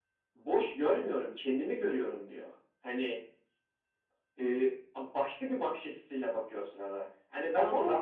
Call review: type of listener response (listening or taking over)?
listening